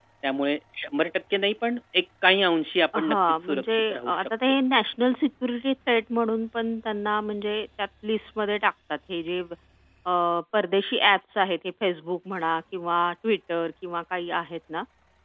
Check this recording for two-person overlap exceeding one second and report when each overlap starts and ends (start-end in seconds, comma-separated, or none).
3.0-4.3